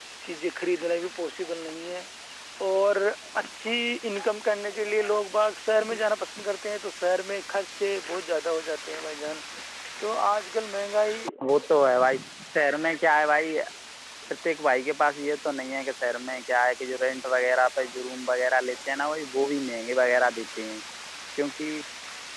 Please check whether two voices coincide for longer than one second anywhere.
No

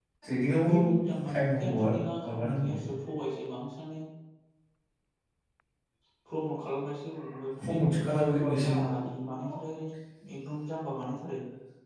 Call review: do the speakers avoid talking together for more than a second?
No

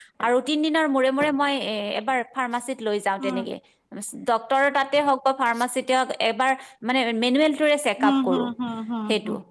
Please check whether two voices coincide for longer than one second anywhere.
No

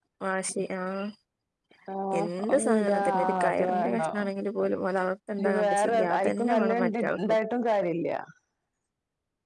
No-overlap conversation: No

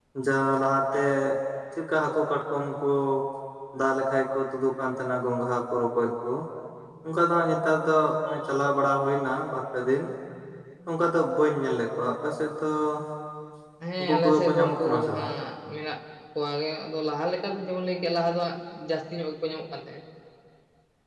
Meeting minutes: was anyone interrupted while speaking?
Yes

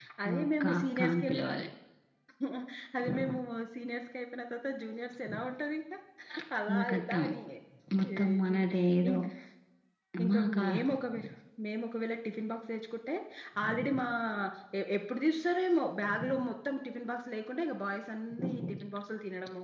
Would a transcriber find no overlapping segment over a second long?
No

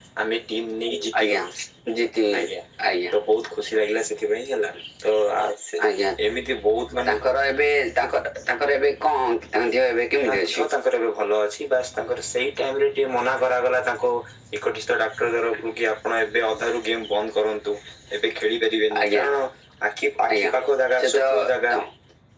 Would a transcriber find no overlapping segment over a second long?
Yes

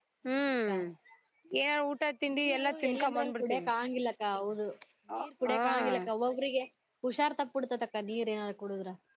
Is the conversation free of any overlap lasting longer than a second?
No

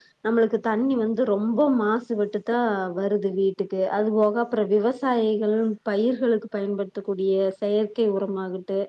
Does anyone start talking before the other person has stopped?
No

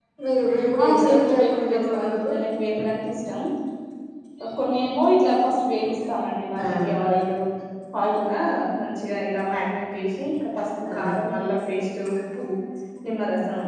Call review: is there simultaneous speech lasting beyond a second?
Yes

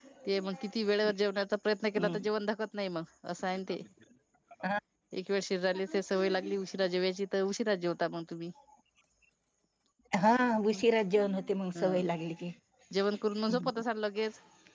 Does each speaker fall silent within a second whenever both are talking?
Yes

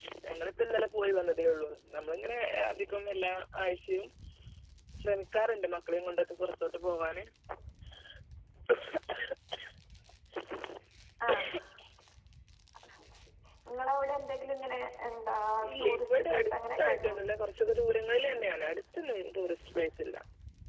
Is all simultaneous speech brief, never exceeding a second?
No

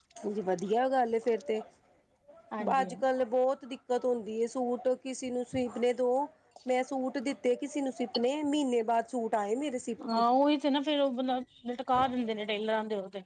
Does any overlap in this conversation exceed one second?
No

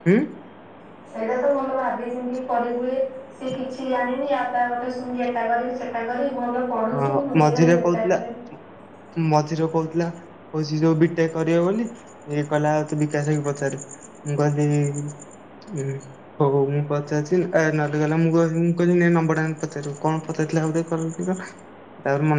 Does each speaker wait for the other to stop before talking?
No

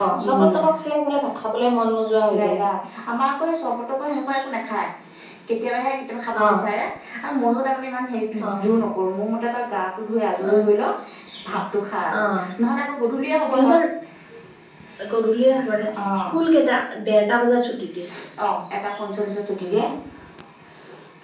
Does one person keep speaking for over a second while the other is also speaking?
No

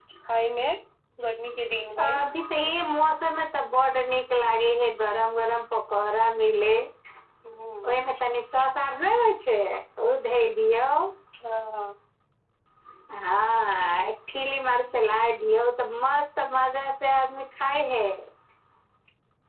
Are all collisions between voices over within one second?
Yes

